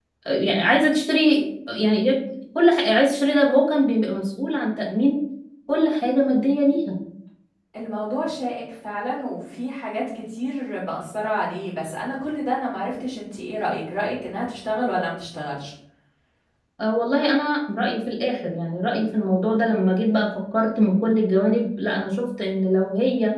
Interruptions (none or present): none